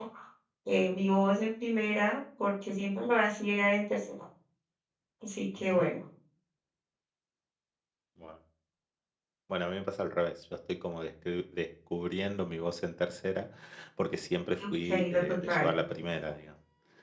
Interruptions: present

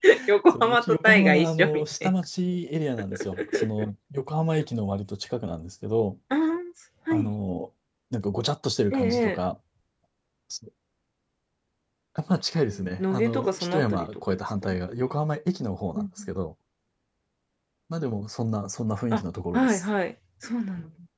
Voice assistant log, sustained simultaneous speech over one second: present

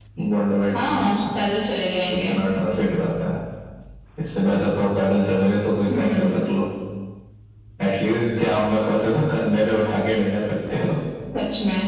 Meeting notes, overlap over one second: none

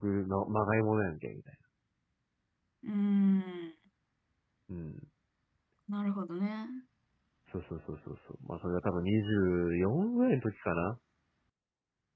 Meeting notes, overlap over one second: none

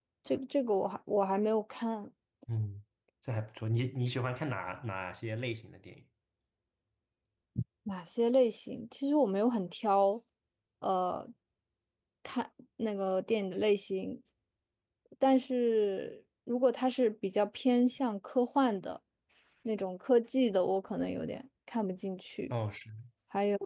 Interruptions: none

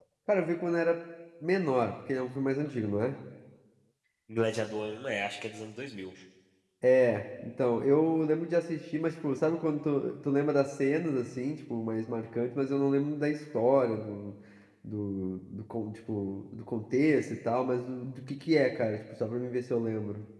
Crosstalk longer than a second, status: none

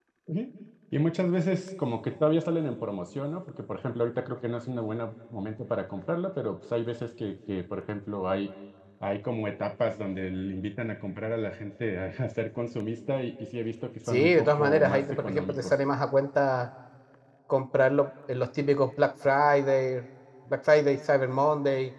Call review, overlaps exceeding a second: present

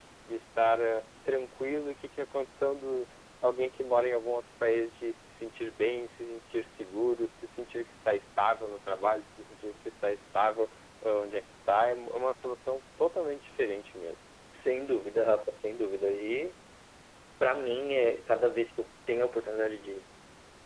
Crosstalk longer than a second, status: none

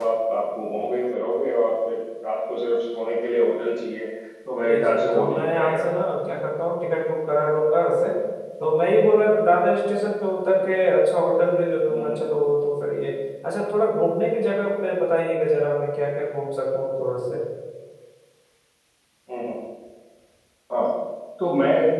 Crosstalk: present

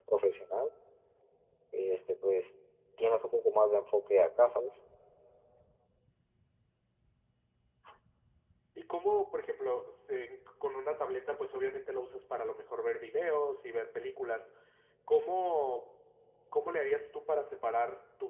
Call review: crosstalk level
none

